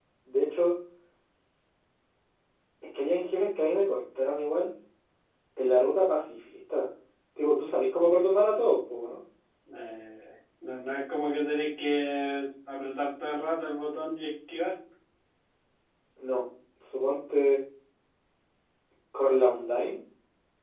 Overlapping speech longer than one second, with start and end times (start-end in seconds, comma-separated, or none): none